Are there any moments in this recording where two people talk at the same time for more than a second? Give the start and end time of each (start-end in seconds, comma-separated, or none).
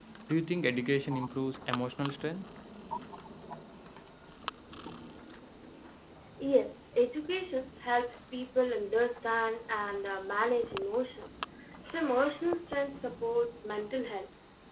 none